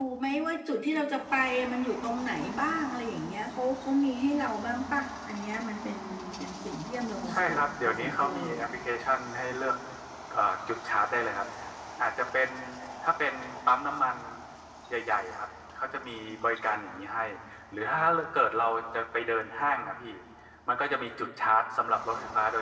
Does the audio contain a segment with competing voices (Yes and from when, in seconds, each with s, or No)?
Yes, from 7.3 s